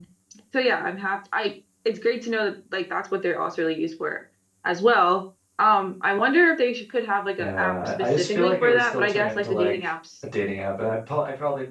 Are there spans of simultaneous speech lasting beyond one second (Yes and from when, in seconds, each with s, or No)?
Yes, from 7.4 s